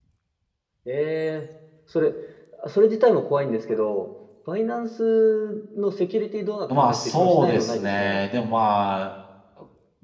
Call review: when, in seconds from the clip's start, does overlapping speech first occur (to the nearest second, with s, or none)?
7 s